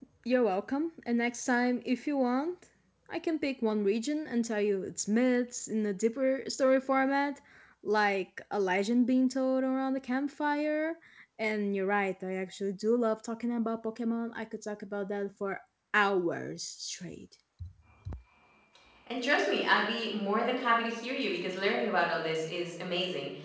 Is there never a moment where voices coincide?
Yes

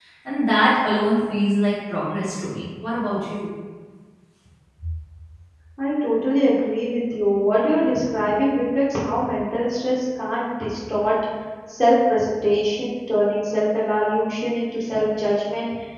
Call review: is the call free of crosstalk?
Yes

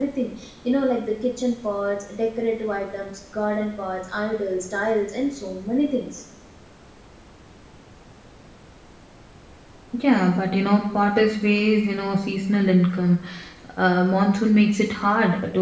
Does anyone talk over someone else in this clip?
No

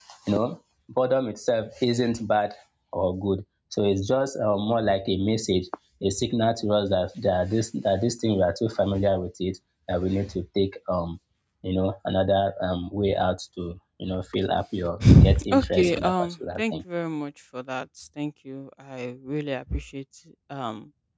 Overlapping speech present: Yes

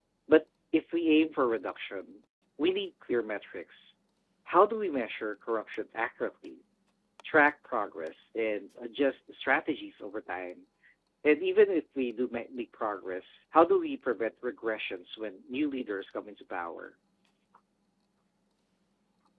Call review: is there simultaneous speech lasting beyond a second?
No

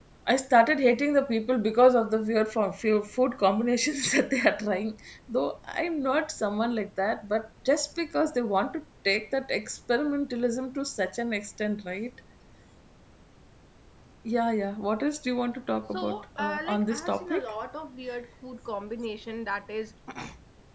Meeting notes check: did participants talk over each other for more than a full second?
Yes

